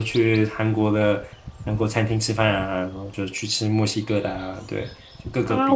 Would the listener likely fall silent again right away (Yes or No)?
No